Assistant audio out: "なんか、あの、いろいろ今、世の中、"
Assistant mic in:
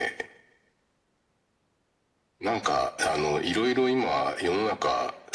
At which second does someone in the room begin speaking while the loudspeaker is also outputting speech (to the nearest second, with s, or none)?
none